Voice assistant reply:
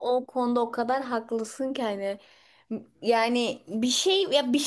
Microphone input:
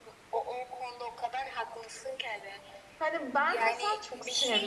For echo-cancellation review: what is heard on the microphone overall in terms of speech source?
both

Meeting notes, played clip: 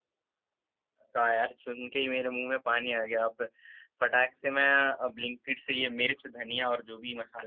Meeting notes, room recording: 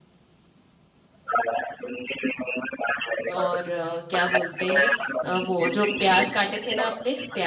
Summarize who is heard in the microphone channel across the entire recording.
both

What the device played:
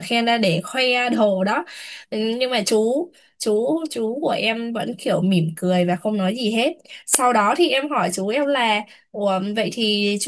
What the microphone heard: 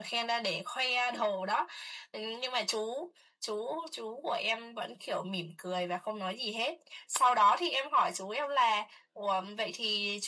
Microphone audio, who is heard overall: echo only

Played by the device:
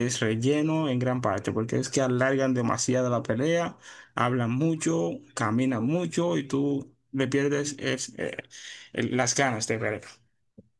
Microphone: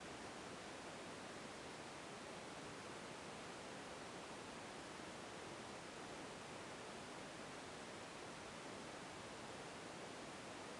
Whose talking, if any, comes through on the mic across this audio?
neither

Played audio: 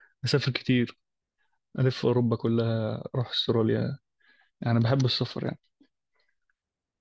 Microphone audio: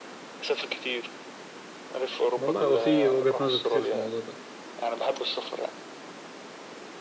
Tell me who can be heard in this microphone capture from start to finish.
both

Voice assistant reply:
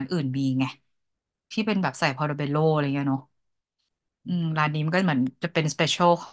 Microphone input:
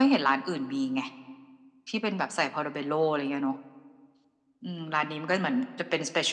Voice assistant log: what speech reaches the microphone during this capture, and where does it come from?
echo only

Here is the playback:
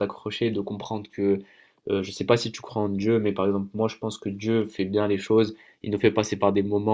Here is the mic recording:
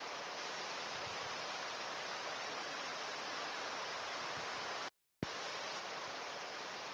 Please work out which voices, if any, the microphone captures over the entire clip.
neither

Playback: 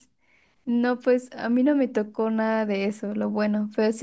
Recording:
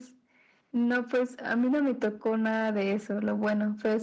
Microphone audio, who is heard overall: echo only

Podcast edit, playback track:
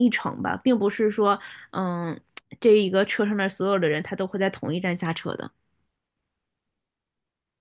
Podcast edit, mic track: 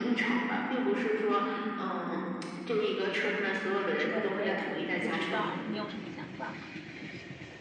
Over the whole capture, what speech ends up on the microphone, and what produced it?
both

